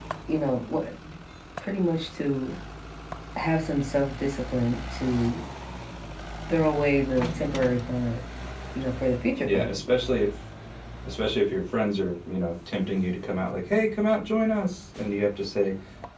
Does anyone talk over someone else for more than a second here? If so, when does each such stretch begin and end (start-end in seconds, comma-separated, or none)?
none